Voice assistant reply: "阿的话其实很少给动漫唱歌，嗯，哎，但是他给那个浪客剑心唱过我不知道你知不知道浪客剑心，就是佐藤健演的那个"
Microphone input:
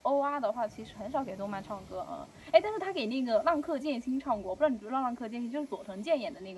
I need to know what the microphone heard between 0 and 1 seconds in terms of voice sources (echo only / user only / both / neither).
echo only